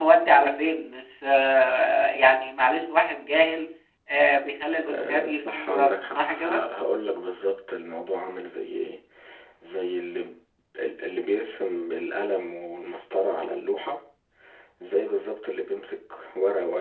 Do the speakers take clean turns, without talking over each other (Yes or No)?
No